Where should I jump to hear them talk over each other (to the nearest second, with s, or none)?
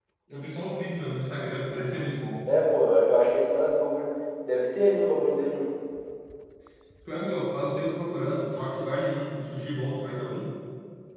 none